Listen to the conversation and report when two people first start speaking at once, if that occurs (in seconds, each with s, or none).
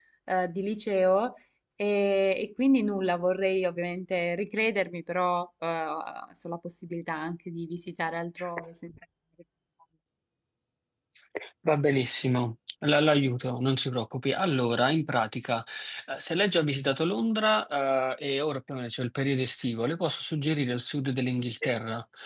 none